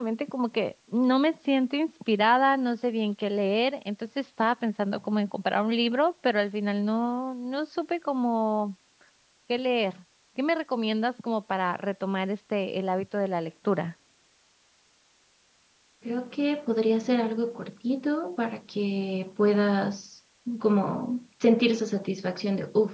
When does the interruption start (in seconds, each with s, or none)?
none